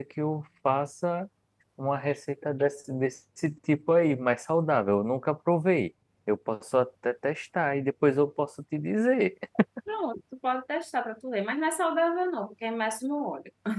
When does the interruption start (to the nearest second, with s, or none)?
none